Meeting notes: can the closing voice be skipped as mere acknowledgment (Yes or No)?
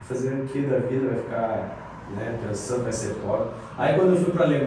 Yes